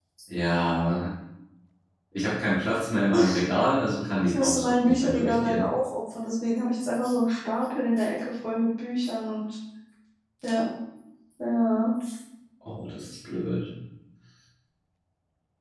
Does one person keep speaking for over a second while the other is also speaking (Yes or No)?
Yes